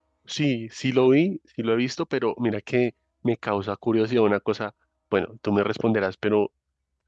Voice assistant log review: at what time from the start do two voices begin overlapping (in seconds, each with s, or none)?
none